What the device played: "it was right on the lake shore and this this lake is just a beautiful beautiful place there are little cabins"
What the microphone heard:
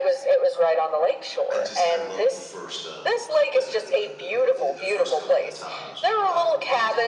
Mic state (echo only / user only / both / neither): both